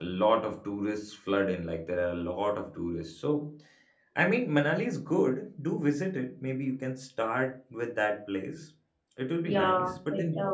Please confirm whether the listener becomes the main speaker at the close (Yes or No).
Yes